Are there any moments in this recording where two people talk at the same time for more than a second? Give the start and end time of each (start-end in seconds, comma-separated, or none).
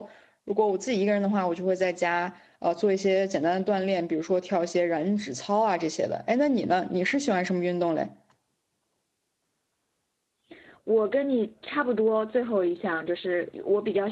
none